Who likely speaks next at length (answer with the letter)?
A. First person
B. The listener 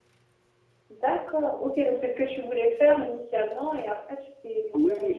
B